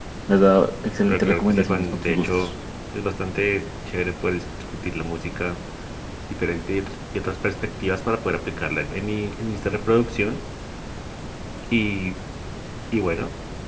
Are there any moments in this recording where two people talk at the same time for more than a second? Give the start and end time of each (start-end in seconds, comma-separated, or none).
1.1-2.5